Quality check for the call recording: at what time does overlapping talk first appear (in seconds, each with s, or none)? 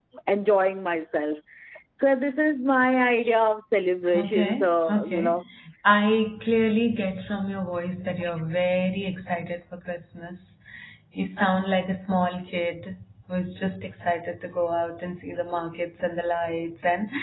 4.1 s